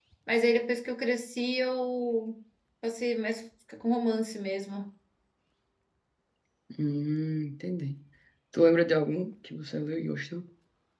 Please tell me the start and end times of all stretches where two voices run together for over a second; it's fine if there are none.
none

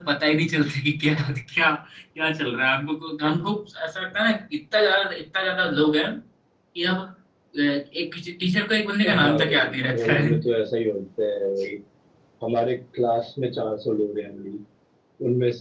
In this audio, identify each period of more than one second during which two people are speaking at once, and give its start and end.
9.1-10.3

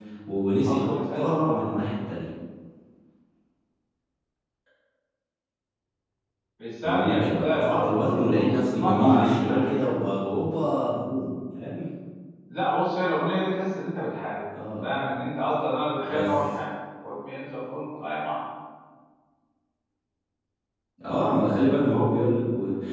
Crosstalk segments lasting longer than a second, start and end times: 0.7-1.9, 6.8-10.0

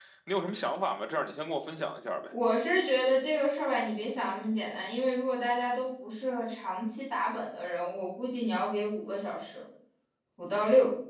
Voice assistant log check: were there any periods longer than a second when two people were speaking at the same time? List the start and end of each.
none

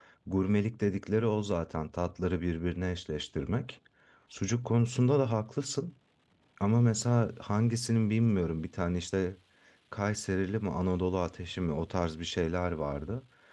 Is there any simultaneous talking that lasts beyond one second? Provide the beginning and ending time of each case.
none

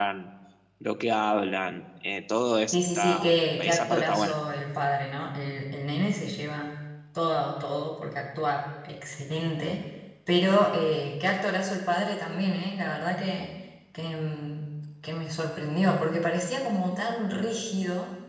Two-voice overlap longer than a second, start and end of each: 2.7-4.4

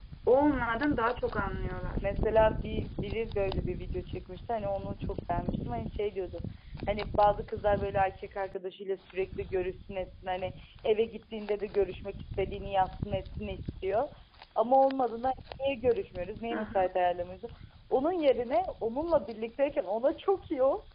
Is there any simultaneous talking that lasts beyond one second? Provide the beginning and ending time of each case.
none

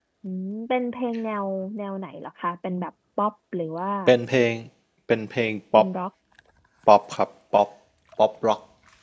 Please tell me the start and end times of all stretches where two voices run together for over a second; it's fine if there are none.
none

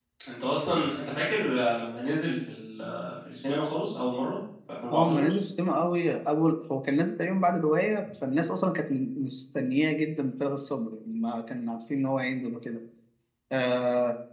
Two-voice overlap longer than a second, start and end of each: none

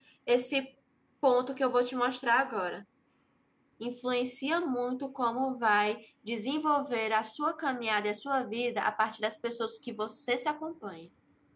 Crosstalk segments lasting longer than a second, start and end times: none

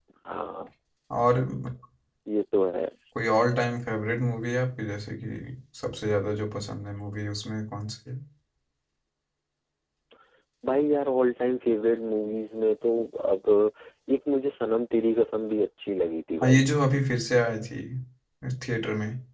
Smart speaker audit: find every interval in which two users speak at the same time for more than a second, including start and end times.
none

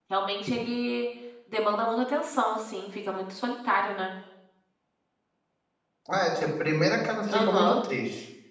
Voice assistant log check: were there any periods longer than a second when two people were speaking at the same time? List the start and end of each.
none

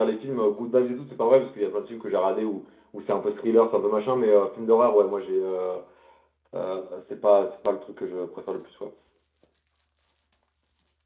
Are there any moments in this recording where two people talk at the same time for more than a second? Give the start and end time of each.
none

